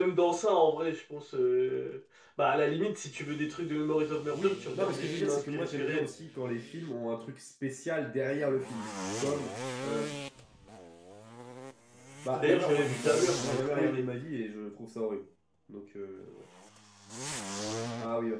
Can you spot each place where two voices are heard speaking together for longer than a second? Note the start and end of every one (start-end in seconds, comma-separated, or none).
4.3-6.1, 12.3-14.1